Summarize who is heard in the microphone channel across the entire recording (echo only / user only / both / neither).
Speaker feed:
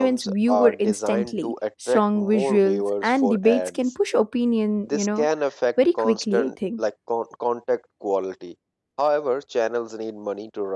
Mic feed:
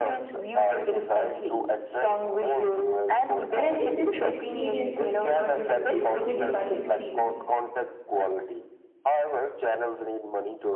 both